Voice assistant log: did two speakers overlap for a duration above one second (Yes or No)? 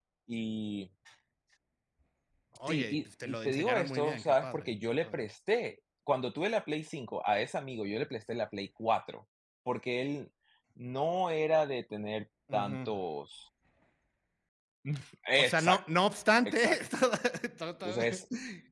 Yes